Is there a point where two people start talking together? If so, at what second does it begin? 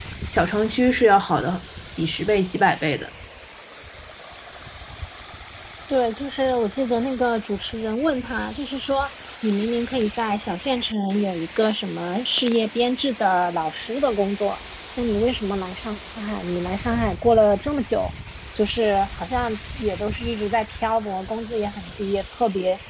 none

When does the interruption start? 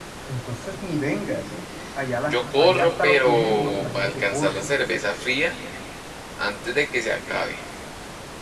2.2 s

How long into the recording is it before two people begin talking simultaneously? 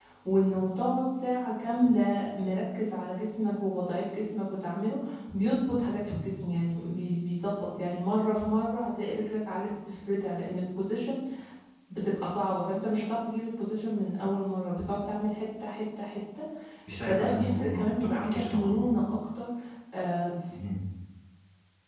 16.9 s

